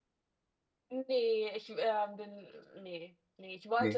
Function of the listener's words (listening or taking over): listening